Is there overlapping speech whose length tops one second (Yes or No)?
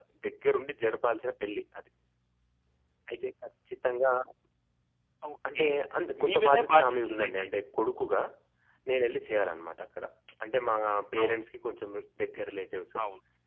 Yes